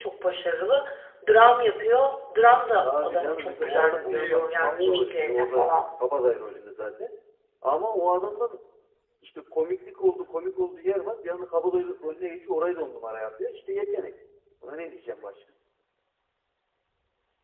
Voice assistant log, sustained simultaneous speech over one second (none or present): present